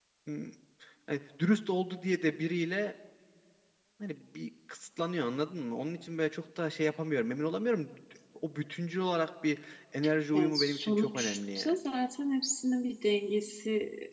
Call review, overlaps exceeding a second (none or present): present